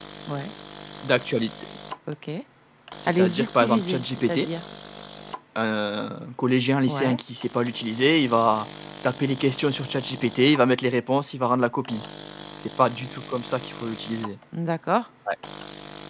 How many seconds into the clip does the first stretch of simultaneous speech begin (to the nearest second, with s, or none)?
3 s